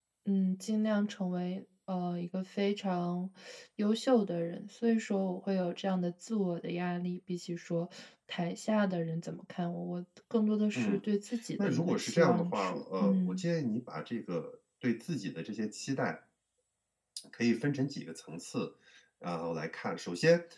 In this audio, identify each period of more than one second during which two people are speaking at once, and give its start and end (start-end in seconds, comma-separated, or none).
11.6-13.4